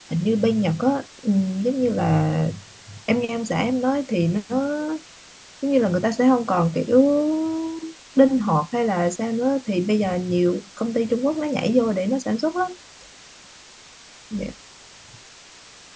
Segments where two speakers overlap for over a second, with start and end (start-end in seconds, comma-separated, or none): none